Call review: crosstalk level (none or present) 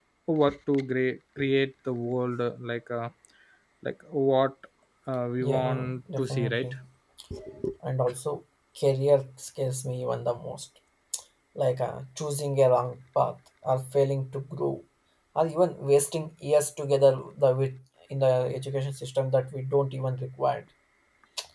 present